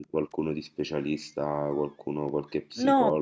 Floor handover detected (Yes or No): Yes